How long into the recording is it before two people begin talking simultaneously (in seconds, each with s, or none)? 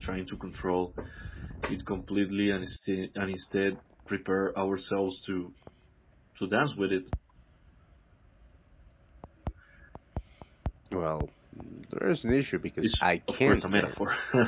12.8 s